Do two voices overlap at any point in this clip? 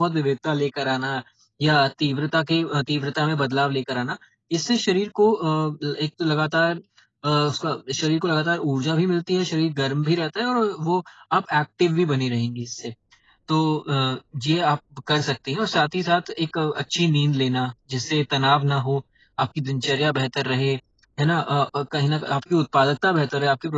No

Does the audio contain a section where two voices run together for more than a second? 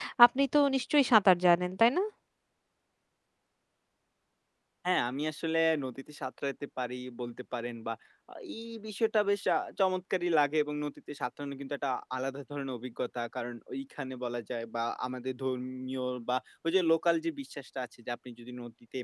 No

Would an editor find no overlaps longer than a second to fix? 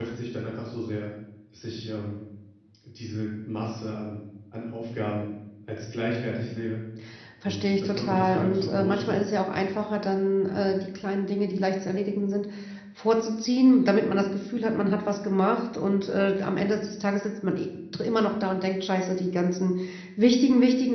No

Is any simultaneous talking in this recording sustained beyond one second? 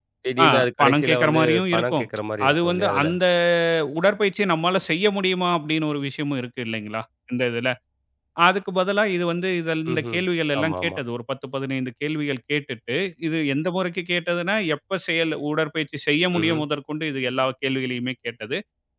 Yes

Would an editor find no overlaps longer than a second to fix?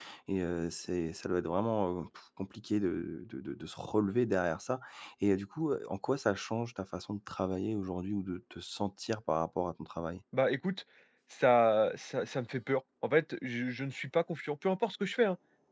Yes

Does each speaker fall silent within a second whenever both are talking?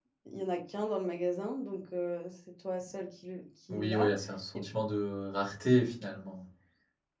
Yes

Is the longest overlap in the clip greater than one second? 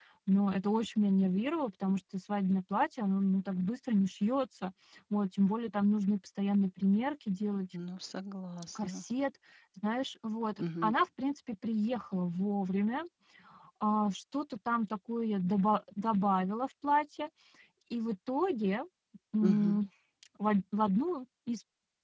No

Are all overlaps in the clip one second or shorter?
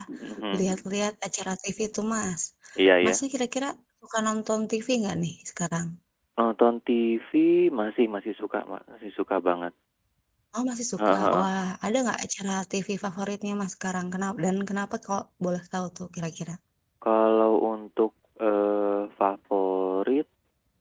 Yes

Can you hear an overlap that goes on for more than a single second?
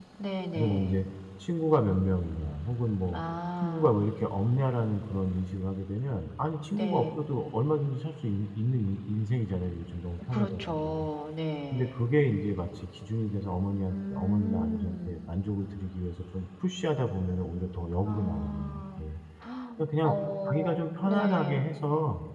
Yes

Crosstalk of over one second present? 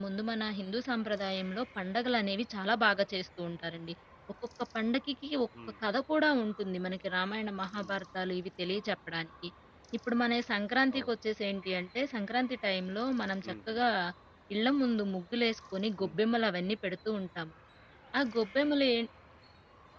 No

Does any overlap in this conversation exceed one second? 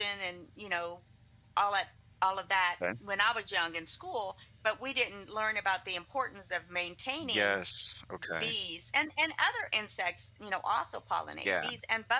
No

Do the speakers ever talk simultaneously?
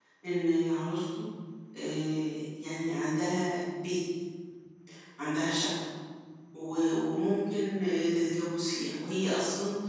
No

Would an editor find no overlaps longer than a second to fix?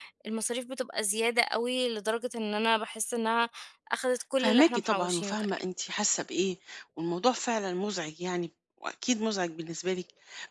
No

